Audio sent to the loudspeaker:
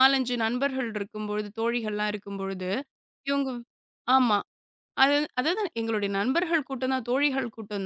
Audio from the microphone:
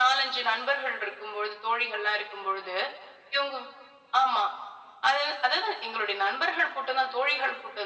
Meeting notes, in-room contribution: none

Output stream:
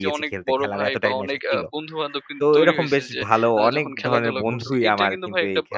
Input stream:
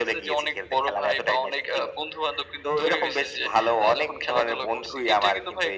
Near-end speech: none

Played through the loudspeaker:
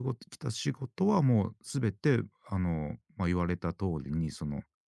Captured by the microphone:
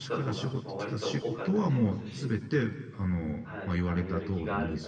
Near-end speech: present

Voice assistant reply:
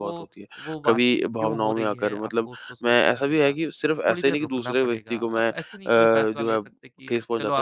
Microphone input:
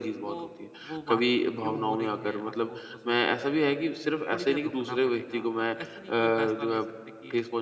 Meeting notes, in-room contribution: none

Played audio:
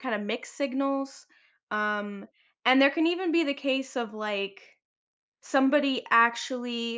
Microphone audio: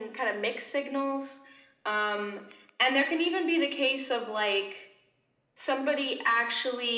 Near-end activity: none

